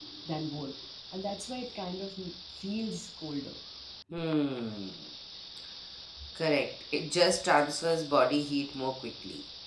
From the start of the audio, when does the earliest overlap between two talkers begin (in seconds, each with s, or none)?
none